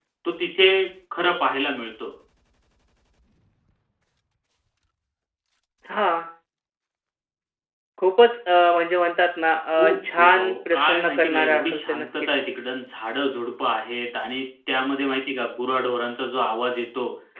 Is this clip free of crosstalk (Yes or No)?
No